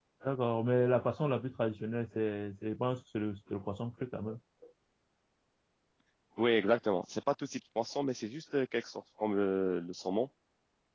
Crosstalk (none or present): none